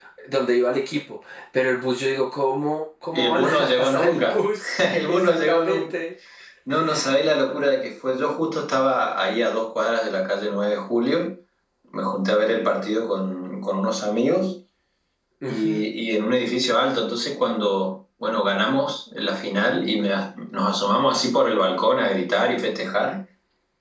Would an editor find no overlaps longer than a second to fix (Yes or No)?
No